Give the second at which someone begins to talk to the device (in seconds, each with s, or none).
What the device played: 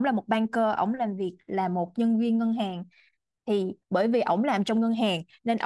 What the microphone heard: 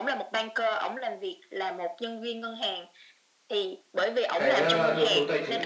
4.3 s